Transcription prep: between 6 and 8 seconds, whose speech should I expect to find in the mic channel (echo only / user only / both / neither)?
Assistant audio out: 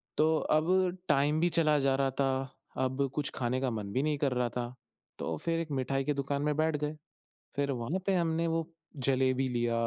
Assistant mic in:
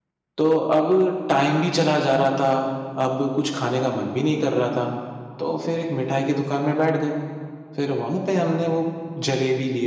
echo only